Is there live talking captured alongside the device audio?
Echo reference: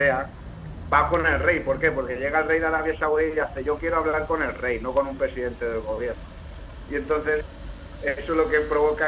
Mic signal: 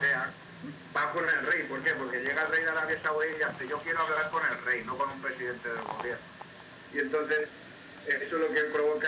No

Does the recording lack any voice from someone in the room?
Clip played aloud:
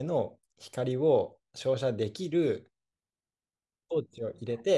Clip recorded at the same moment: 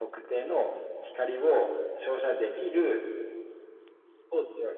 Yes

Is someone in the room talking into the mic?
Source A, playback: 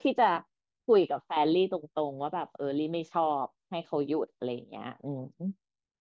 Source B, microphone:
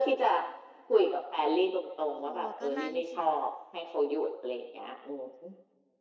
Yes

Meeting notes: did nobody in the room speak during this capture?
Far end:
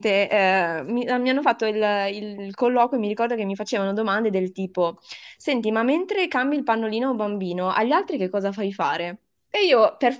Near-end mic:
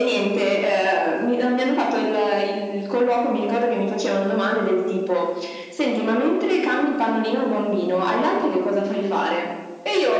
Yes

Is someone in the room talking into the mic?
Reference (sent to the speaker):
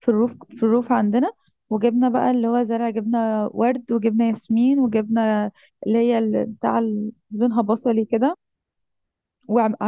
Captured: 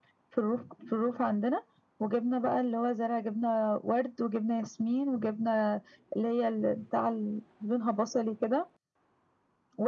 No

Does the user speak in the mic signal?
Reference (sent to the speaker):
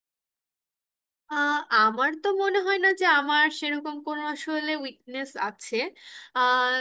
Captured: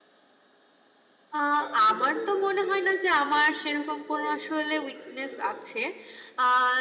Yes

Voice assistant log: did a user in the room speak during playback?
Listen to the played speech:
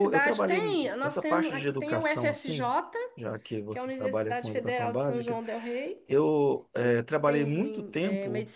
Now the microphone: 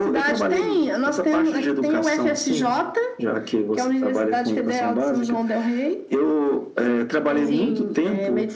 Yes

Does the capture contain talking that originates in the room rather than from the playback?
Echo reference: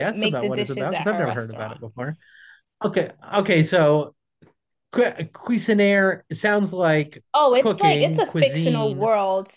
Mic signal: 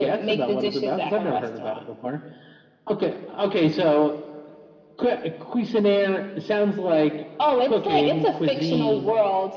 No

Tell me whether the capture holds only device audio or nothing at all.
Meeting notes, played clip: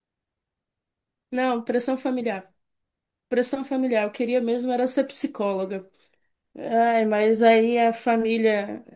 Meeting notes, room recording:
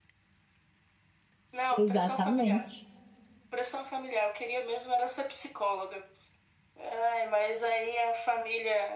No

